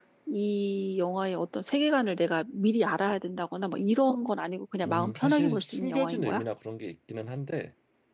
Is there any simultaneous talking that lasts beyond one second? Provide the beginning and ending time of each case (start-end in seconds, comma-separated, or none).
4.8-6.4